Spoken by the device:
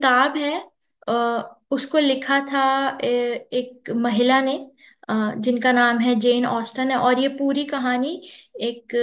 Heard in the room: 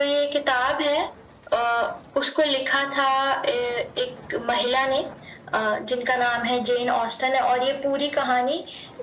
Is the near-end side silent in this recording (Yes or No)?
Yes